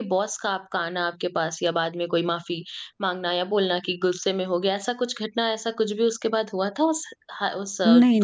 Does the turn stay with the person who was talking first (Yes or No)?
No